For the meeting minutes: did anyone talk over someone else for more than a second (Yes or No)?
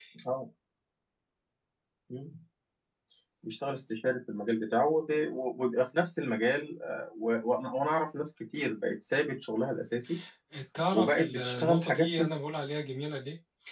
Yes